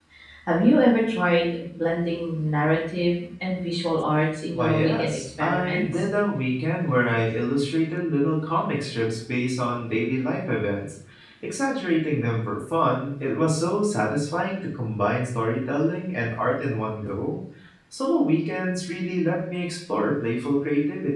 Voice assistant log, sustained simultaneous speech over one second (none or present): present